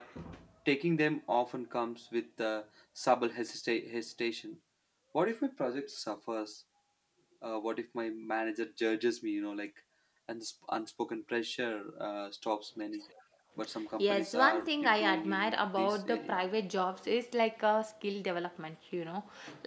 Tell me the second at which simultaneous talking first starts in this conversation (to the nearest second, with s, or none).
14 s